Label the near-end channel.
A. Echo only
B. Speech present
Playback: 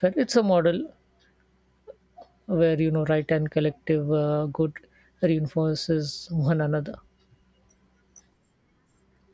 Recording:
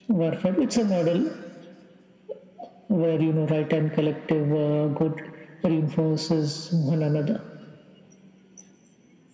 A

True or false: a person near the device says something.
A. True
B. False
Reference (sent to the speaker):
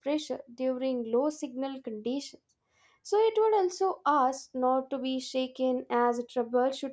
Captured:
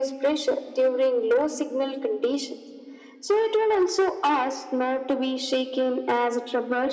B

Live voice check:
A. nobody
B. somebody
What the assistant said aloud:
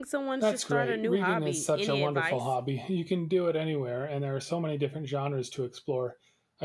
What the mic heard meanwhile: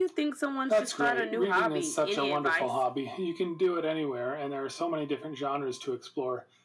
A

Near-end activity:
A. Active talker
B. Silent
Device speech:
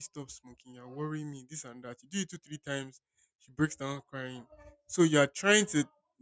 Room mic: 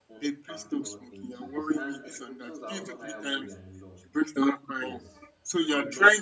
A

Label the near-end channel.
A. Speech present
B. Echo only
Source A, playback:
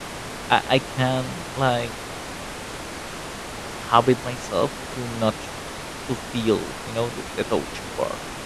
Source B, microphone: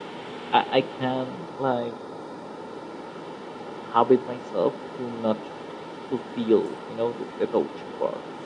B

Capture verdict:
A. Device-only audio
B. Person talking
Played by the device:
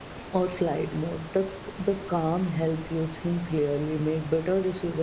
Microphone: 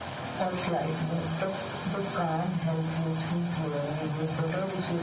A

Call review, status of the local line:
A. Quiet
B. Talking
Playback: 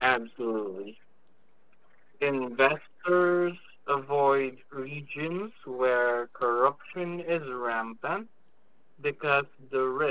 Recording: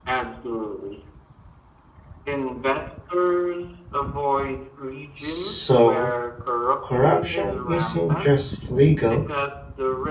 B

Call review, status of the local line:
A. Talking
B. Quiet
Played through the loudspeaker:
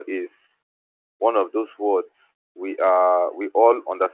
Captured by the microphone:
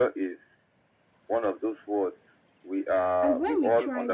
A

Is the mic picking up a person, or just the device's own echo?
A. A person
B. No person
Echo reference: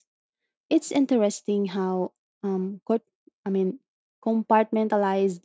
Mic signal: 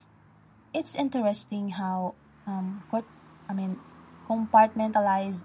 B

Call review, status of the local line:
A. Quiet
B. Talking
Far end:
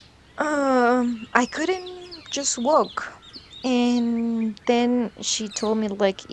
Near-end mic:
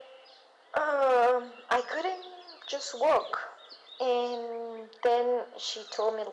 A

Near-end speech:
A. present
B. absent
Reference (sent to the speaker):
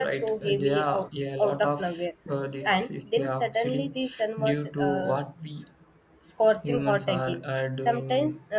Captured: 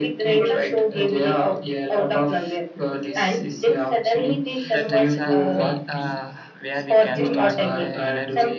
A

